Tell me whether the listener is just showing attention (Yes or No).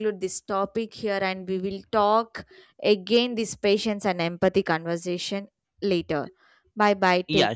No